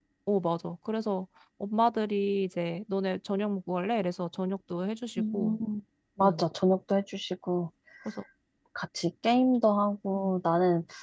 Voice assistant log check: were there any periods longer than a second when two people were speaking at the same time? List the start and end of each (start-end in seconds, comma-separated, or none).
none